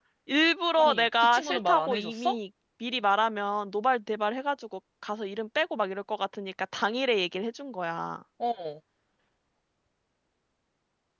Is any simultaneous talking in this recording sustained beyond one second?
Yes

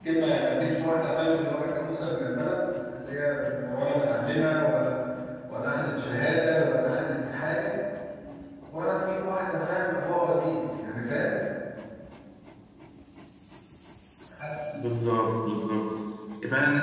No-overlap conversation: Yes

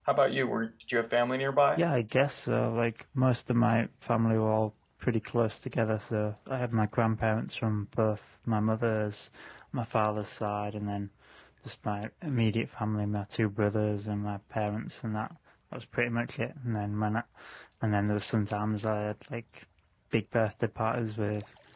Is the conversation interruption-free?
Yes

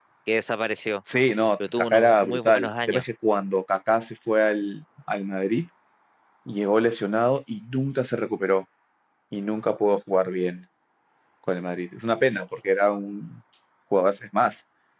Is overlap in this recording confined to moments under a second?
No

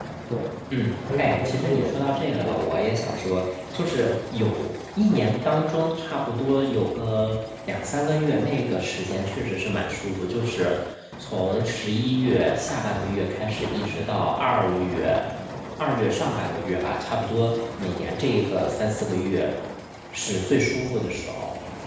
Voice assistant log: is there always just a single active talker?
No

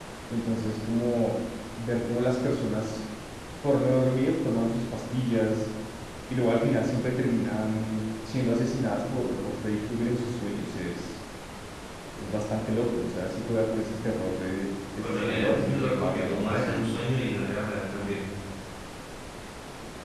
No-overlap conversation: No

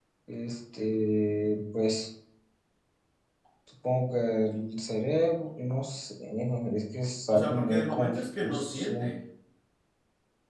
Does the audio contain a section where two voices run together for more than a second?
Yes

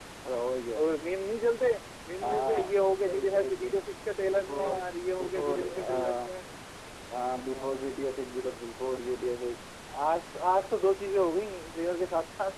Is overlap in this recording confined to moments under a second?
No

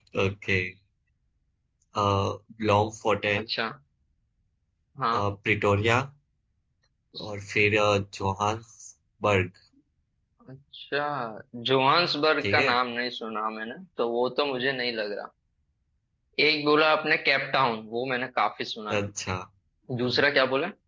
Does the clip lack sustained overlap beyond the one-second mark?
Yes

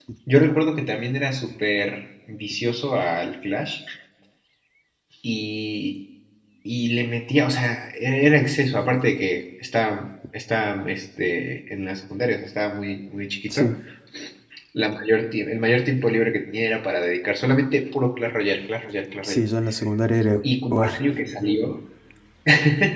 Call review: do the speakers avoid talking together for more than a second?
Yes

